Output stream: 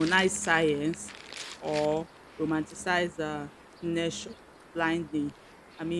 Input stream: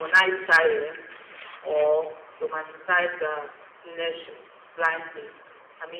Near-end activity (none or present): none